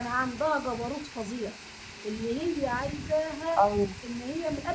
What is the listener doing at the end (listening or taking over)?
listening